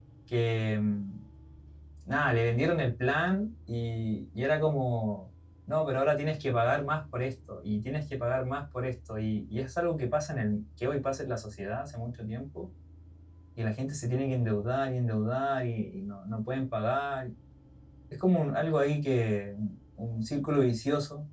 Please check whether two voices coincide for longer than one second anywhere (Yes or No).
No